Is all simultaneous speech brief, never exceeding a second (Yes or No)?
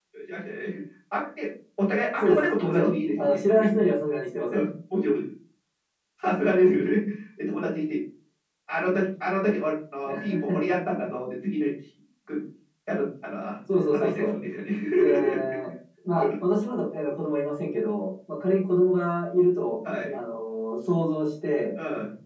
No